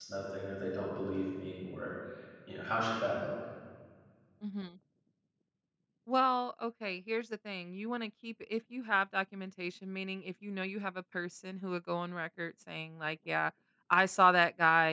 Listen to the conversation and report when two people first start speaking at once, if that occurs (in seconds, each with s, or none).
none